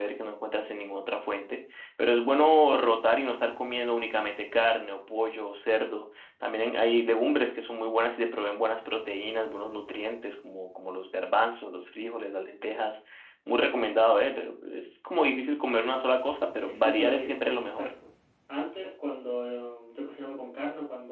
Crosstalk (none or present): present